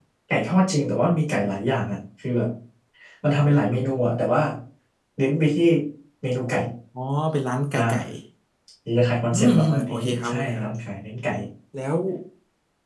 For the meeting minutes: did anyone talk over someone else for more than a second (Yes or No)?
Yes